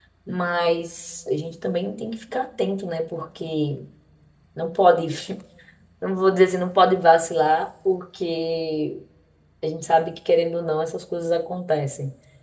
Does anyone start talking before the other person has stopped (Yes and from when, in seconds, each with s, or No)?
No